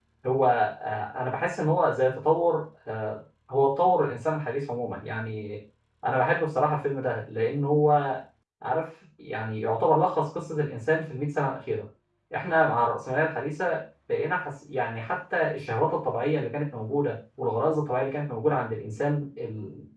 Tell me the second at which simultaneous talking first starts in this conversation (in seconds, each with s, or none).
none